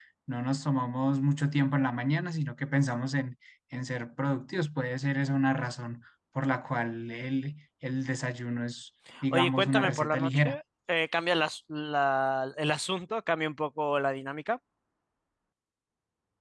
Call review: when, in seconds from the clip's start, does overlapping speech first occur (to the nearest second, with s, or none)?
9 s